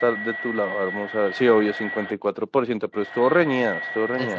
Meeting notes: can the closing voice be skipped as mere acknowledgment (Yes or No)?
No